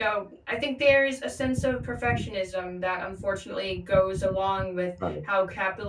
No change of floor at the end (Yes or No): Yes